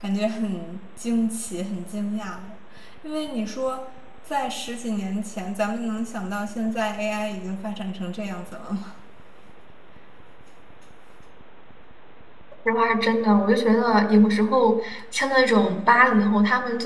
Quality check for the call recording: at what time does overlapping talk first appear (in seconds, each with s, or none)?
none